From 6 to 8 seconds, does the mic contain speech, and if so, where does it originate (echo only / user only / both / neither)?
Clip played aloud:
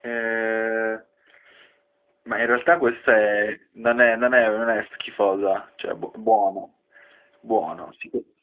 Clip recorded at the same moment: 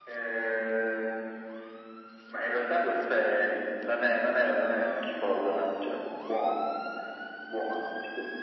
echo only